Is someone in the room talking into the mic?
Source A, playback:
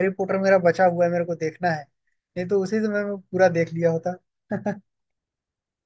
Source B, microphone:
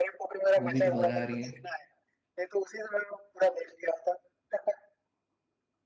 Yes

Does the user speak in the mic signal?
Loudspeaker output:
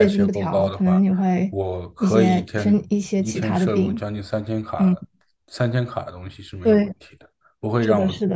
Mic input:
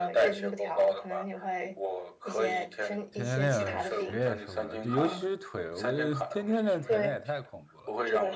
Yes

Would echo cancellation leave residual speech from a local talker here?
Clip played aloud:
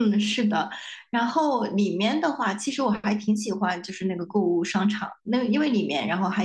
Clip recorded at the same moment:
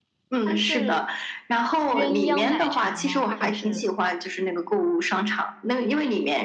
Yes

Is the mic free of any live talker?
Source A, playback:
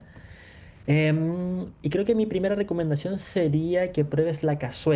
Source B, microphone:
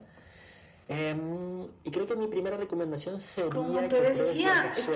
No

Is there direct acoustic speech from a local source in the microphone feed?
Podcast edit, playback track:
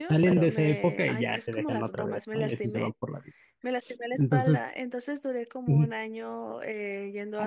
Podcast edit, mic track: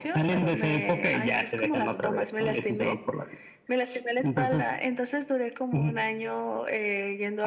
No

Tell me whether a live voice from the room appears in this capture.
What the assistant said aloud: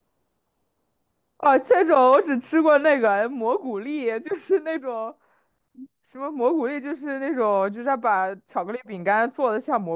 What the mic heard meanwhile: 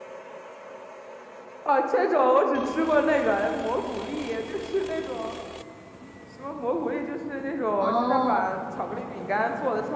Yes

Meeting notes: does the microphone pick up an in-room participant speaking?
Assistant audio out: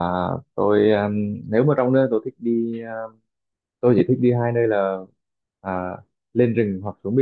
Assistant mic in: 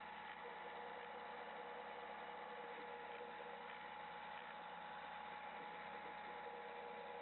No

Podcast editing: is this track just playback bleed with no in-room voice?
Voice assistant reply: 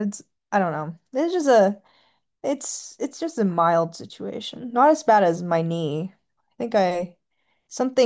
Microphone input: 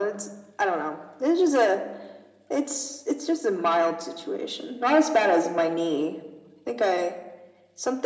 Yes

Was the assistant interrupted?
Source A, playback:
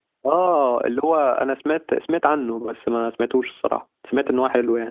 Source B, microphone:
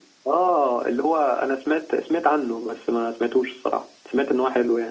No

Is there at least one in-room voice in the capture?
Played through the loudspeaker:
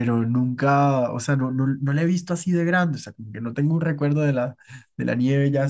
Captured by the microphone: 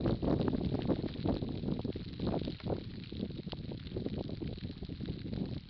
No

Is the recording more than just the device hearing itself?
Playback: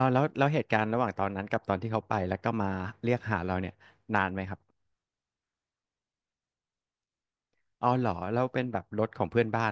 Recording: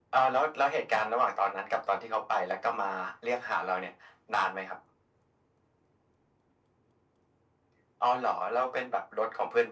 No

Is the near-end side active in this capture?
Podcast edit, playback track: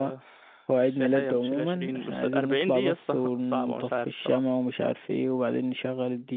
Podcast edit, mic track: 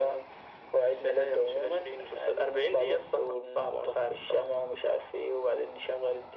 No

